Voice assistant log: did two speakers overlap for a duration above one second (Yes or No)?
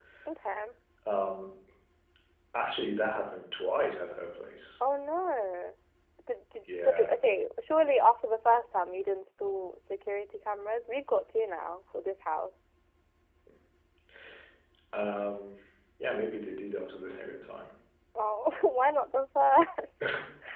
No